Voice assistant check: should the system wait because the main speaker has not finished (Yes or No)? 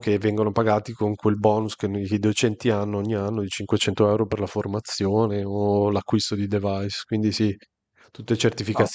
Yes